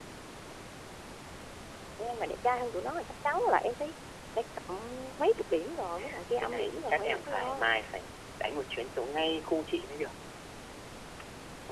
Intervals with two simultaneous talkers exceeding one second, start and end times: 6.4-7.7

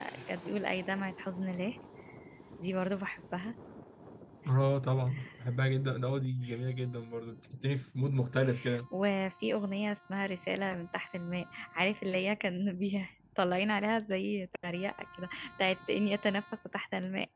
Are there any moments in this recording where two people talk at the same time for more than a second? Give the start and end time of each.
none

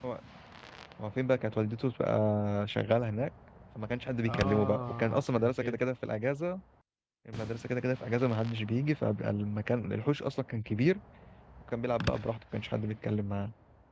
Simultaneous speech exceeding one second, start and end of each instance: 4.3-5.8

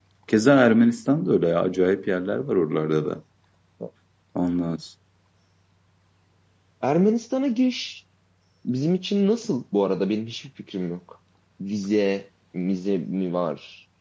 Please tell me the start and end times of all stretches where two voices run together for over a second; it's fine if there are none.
none

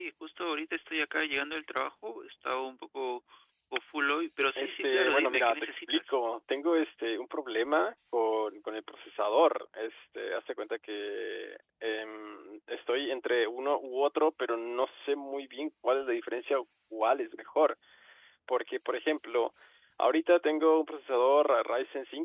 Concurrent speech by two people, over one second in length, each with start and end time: 4.6-6.2

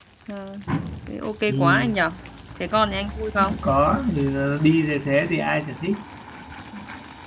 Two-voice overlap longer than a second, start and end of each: none

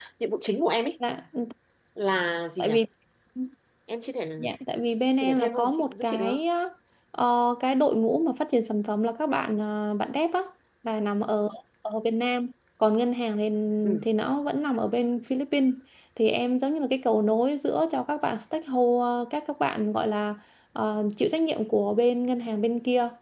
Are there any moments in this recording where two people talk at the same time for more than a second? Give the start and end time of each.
5.2-6.4

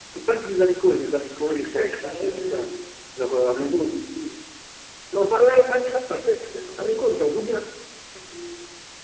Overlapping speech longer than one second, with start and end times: 1.4-2.7

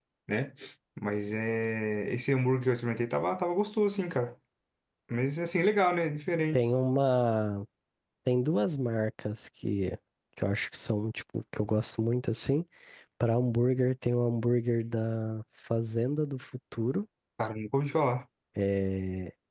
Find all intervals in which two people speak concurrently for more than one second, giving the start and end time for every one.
none

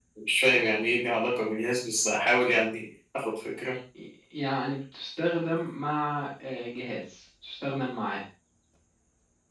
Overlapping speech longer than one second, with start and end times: none

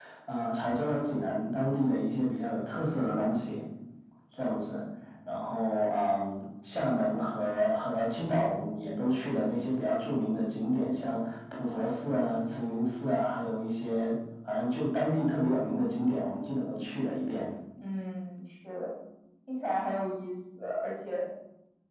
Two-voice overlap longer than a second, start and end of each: none

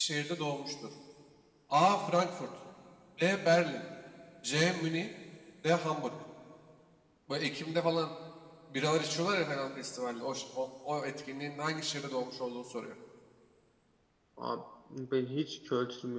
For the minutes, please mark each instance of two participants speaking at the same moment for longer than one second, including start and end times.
none

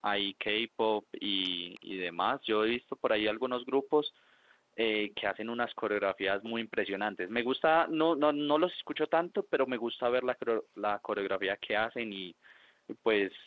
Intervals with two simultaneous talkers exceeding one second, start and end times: none

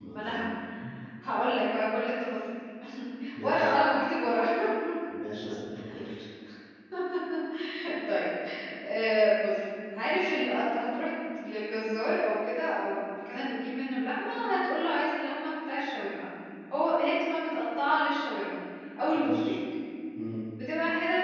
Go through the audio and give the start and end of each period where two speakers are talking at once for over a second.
none

